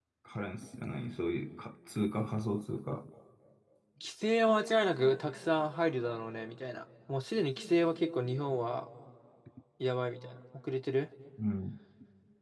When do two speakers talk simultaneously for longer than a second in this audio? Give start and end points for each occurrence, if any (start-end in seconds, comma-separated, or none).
none